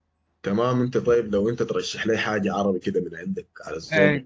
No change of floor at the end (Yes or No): No